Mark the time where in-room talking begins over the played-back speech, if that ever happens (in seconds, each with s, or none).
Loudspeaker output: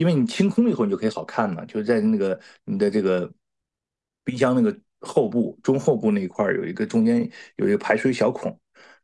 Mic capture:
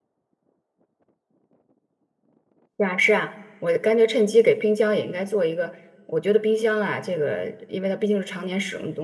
2.8 s